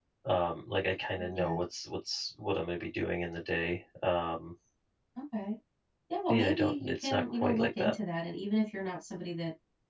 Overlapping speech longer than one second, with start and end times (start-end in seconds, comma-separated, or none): 6.3-7.9